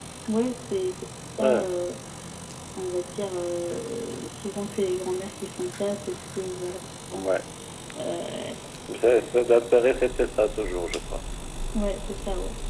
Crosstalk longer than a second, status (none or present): none